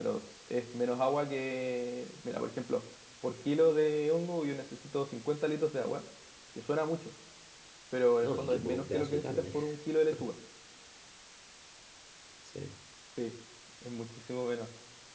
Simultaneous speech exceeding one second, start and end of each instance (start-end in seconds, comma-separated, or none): 8.2-9.6